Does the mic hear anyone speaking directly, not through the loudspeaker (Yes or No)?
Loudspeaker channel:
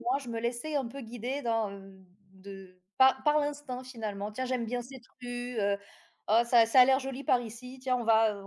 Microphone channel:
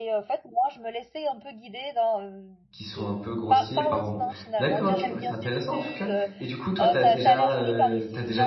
Yes